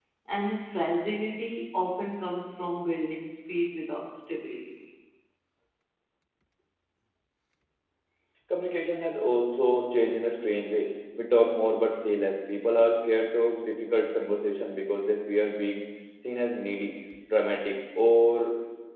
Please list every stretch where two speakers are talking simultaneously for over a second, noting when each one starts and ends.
none

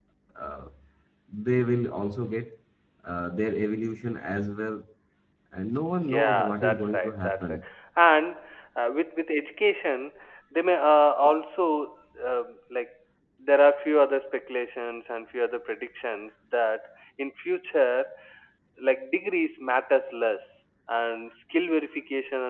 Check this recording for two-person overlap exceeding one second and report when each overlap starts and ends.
6.1-7.6

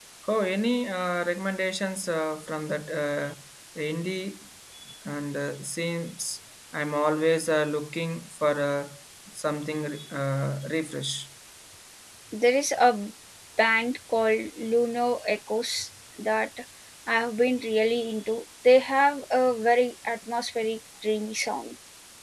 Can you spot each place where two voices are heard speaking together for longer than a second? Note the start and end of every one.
none

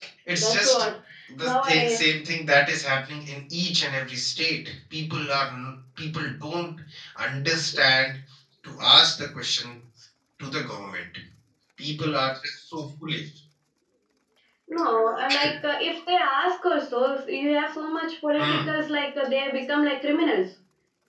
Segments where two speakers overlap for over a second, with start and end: none

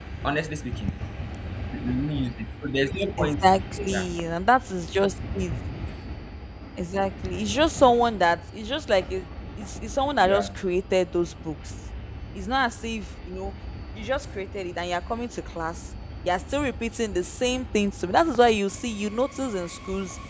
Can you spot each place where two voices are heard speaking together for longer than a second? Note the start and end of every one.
none

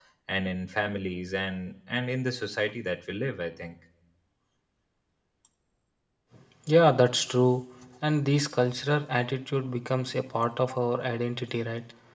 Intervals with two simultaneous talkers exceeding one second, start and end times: none

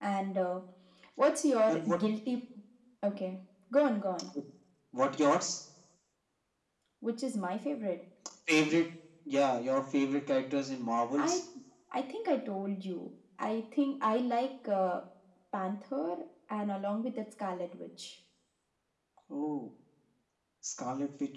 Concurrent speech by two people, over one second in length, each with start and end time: none

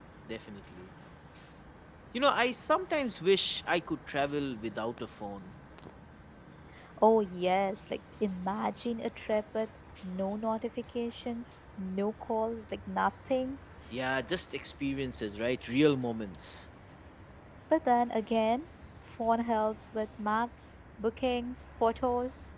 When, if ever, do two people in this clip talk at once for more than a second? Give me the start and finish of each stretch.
none

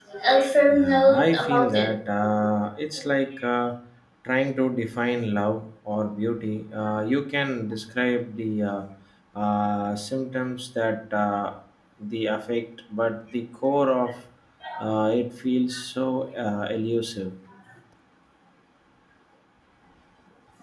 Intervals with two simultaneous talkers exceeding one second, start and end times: 0.7-1.9

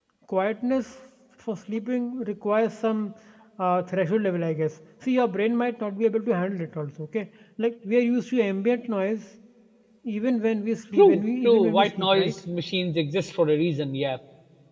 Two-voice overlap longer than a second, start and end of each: 11.0-12.3

